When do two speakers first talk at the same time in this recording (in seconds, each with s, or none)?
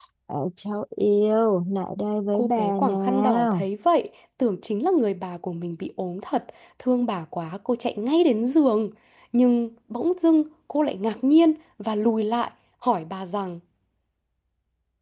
2.3 s